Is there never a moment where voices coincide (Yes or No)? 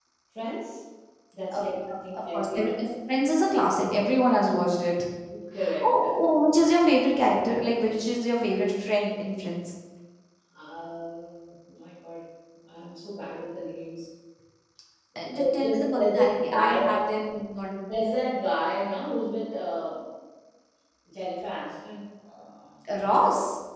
No